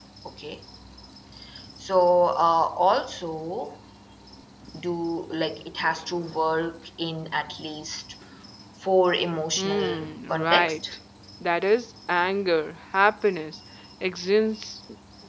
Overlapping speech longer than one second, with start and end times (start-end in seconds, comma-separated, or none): 9.6-10.8